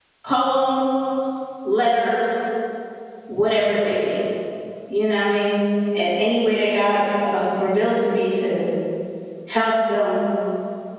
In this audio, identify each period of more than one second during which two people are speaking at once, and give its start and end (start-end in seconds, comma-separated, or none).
none